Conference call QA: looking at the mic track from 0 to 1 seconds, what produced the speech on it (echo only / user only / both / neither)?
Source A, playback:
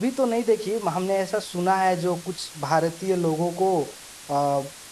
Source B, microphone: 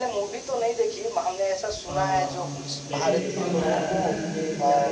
echo only